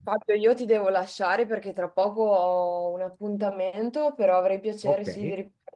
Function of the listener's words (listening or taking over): listening